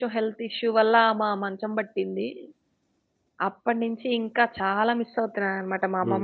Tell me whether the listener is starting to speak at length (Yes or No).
Yes